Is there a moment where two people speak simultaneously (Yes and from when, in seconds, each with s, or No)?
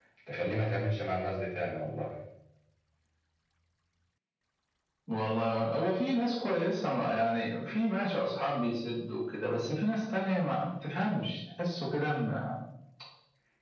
No